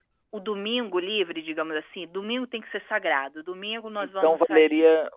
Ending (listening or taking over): taking over